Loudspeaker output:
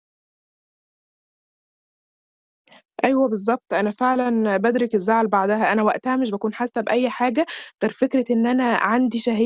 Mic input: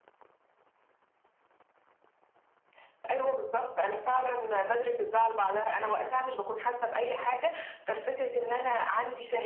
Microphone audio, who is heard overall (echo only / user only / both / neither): echo only